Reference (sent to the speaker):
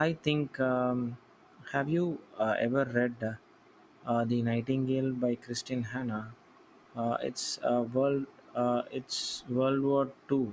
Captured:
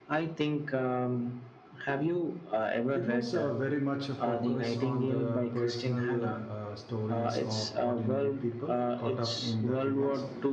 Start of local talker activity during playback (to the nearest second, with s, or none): 3 s